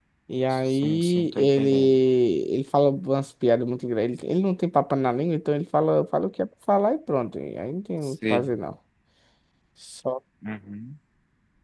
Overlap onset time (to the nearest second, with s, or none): 1 s